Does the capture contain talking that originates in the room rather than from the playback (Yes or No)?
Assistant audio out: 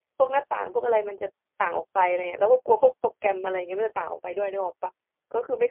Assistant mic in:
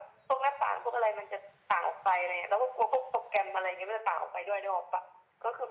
No